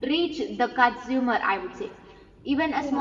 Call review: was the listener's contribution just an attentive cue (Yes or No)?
Yes